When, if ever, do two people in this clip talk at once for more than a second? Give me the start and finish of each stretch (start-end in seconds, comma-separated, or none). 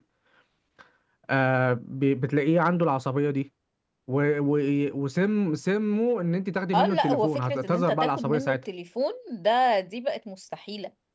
6.7-8.6